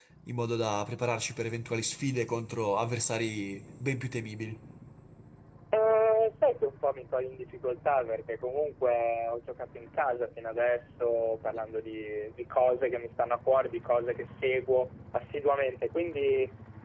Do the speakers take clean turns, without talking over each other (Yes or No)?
Yes